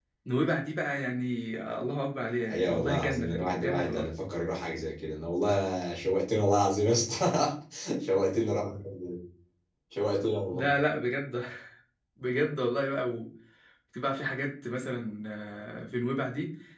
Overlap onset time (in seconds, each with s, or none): 2.5 s